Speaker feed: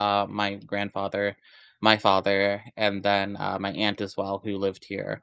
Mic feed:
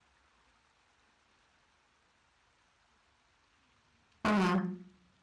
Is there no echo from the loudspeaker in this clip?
Yes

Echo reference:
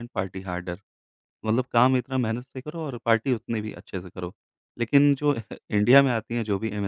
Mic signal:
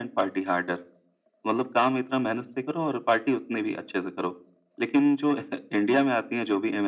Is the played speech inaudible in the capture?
No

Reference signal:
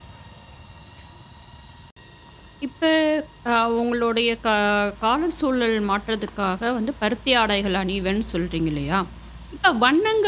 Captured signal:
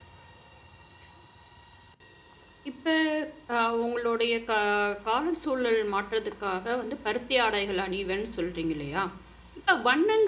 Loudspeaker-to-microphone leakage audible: Yes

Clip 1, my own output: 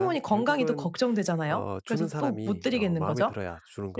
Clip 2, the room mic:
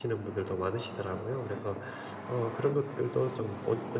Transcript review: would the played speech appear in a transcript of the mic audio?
No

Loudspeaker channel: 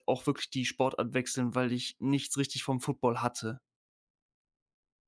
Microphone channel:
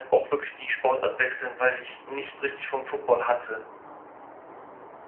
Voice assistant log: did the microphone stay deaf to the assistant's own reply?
No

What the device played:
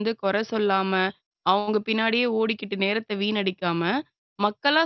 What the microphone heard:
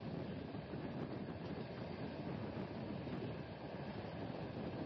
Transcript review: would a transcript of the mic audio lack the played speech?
Yes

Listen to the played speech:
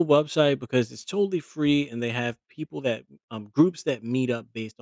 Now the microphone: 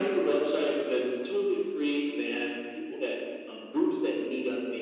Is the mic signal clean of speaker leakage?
No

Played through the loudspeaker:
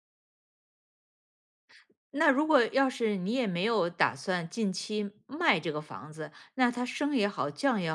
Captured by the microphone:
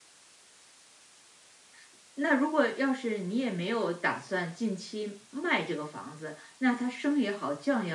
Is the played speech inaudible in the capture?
No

